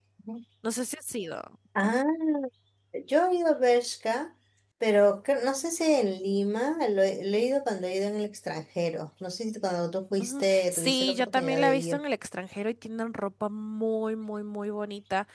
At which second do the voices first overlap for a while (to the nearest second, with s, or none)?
10 s